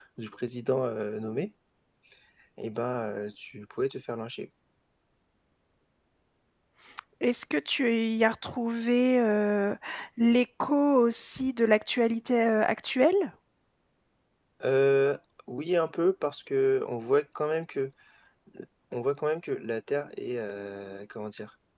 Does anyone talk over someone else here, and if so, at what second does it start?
none

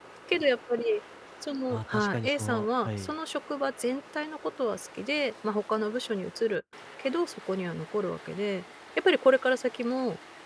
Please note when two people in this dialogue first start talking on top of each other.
1.7 s

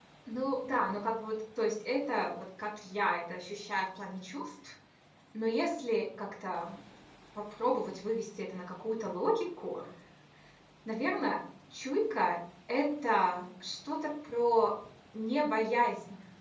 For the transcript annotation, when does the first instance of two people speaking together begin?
none

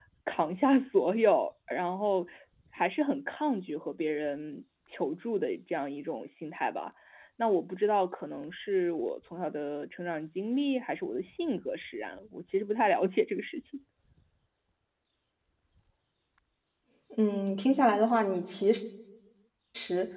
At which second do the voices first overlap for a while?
none

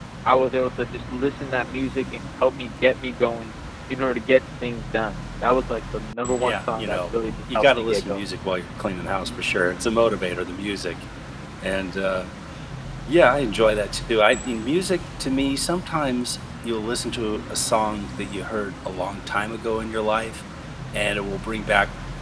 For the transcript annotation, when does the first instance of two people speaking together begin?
6.4 s

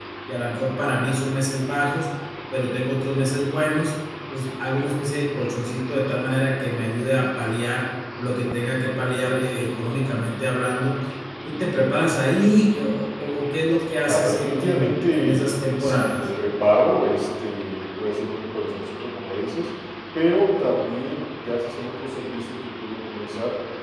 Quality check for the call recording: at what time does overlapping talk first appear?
14.0 s

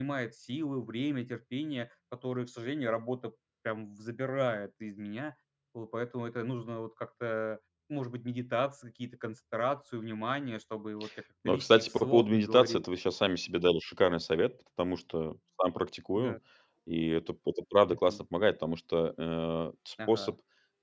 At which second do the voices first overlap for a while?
11.4 s

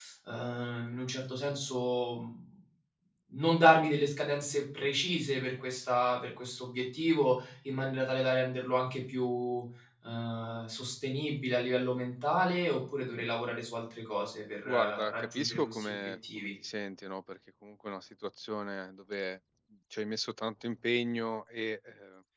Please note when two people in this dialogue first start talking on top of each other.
14.6 s

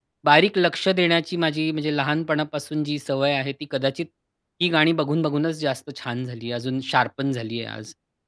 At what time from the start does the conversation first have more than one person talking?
none

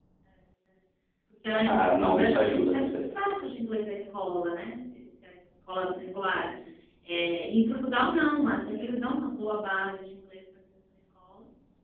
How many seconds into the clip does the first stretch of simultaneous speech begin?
1.6 s

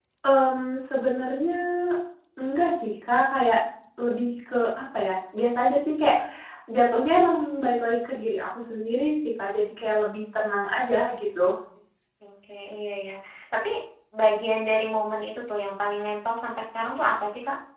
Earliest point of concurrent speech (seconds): none

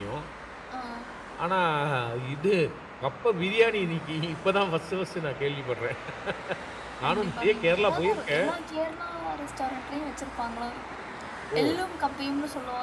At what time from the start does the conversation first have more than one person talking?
7.0 s

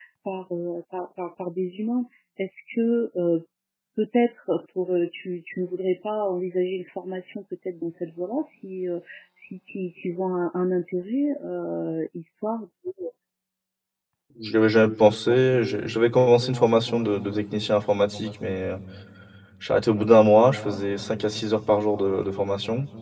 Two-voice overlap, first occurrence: none

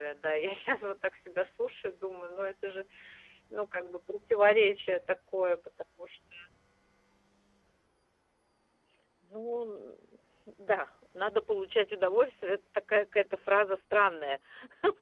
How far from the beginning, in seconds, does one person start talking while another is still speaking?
none

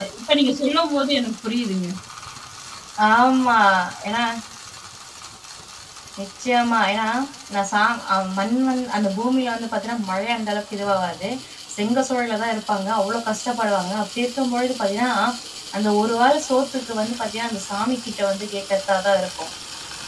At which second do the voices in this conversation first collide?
none

